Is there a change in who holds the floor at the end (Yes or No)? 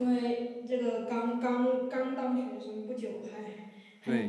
Yes